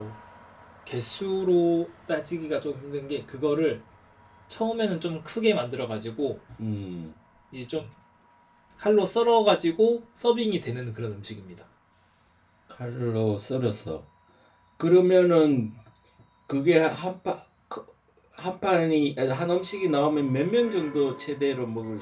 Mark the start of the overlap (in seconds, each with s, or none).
none